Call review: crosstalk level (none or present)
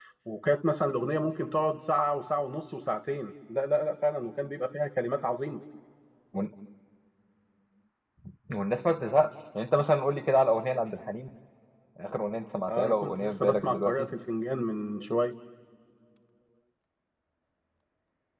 present